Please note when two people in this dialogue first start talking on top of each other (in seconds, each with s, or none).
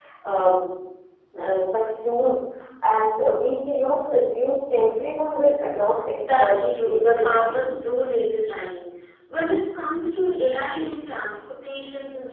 6.2 s